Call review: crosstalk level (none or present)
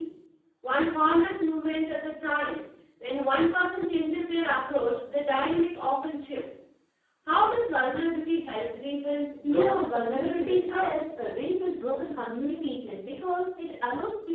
present